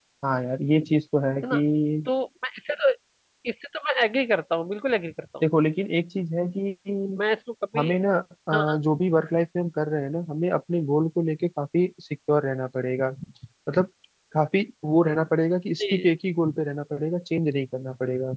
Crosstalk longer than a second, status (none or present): none